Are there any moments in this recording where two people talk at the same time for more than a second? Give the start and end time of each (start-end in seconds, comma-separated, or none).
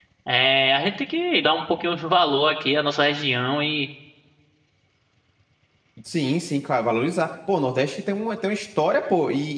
none